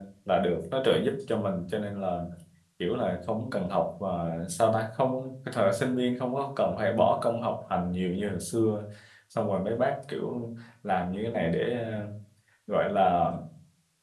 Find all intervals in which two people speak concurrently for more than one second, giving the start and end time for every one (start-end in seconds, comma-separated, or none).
none